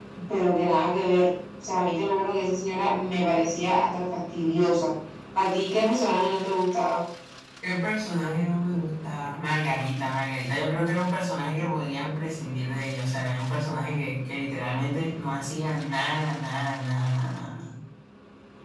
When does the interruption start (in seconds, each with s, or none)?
none